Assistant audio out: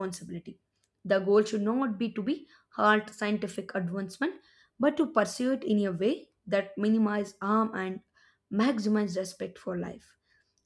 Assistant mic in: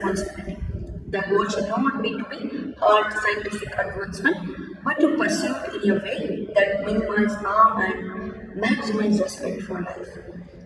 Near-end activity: none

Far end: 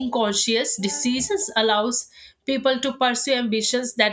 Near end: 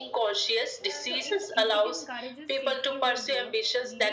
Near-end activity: present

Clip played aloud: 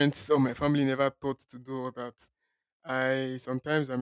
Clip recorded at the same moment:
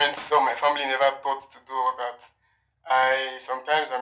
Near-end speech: none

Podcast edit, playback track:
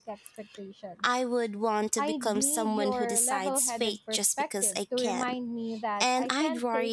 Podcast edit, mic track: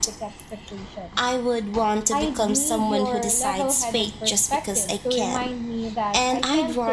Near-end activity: none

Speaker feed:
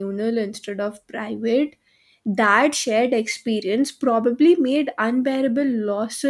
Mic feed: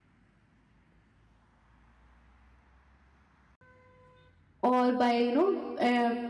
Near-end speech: present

